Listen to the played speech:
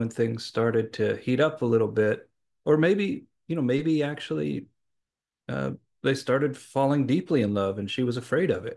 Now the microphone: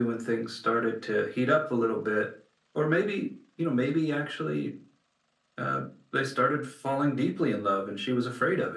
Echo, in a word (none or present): present